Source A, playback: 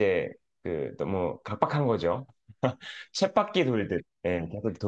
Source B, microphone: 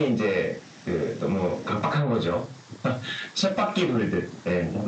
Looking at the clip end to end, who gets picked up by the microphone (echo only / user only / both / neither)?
echo only